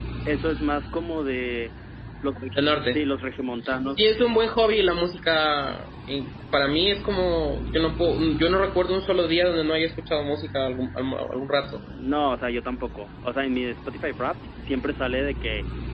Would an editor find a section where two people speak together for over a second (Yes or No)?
No